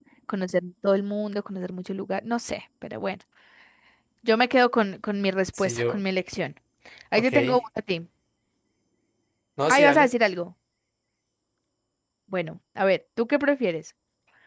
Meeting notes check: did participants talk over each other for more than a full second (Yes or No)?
No